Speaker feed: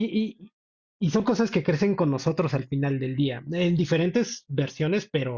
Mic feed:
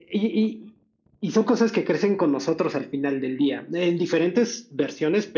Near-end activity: none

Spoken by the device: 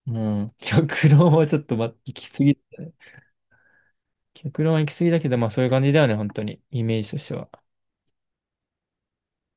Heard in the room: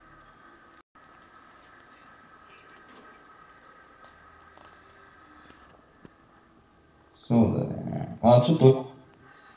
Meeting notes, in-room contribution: present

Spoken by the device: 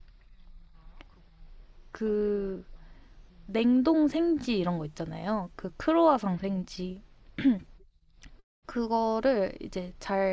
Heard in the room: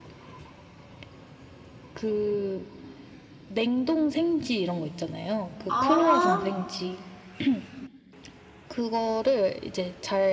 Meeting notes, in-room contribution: present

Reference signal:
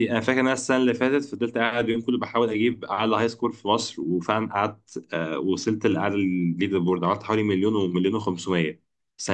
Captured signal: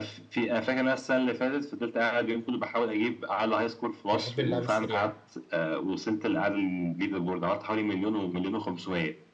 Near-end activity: present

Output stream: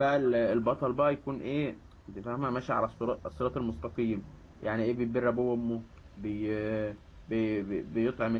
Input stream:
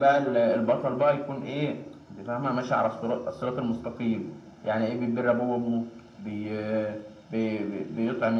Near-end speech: none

